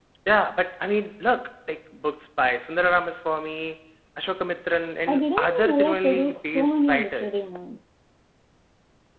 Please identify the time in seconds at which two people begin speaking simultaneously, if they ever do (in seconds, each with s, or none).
5.1 s